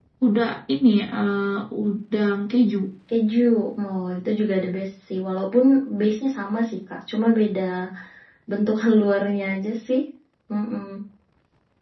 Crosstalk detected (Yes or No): No